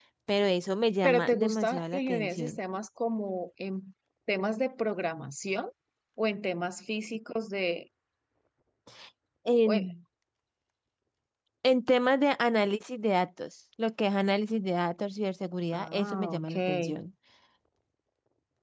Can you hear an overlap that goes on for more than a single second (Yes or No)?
Yes